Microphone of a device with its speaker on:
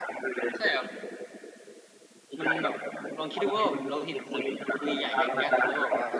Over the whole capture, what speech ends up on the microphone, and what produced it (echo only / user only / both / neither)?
both